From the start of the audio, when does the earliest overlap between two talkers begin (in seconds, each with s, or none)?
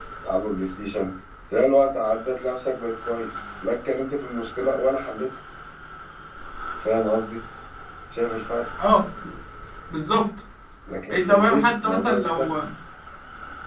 11.1 s